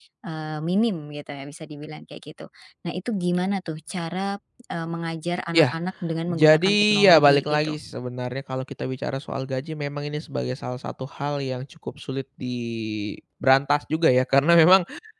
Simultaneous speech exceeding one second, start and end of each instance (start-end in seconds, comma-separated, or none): 6.3-7.8